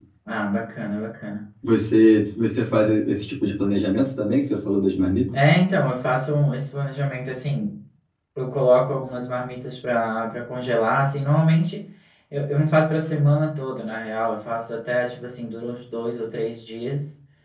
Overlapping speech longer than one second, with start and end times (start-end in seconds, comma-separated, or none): none